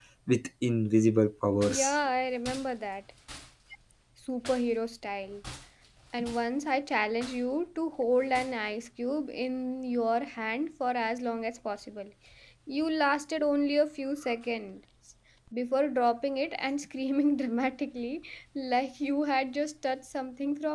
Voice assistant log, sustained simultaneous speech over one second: none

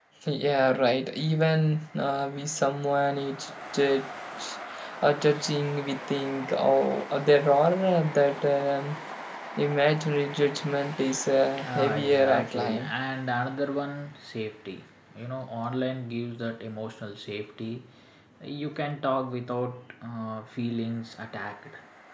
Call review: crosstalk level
present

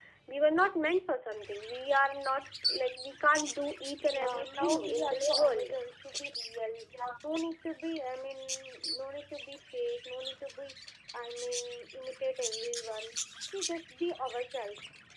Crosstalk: present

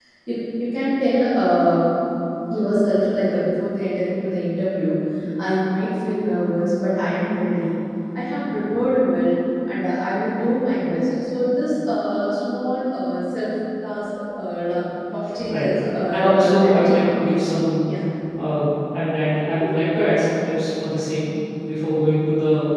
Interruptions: present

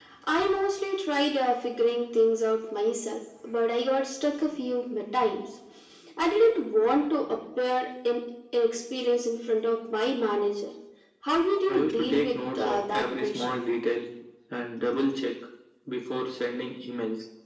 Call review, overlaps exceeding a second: present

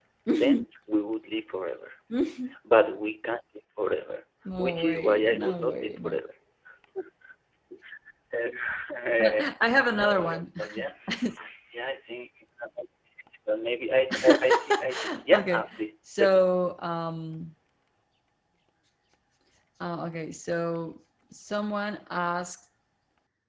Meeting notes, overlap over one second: present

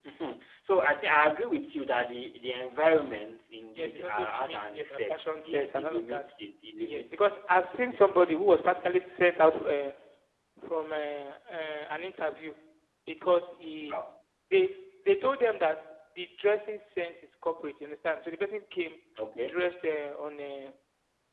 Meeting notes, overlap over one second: present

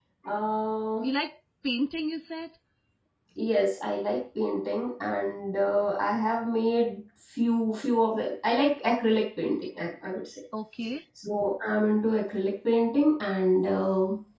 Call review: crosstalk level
none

